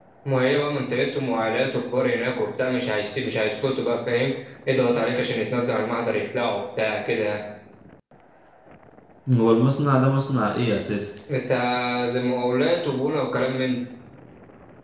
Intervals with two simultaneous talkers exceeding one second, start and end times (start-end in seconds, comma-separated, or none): none